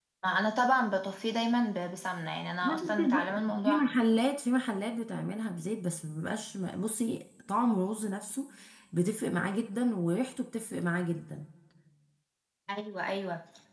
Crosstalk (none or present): present